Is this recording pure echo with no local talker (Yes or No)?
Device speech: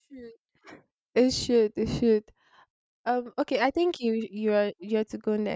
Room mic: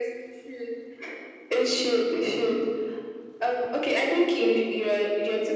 Yes